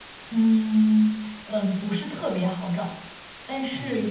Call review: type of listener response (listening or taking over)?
listening